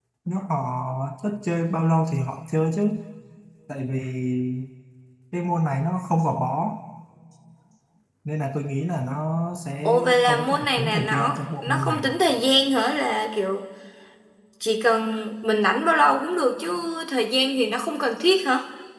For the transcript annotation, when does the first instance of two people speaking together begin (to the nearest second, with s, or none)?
10 s